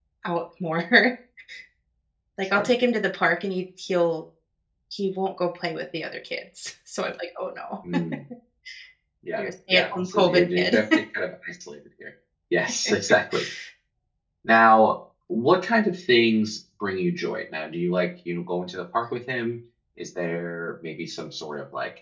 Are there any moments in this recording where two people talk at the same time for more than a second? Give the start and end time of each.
9.4-10.8

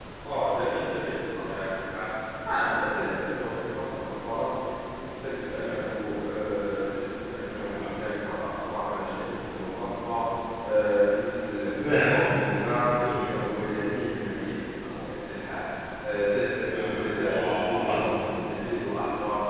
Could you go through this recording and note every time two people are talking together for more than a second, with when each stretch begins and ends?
16.6-17.9

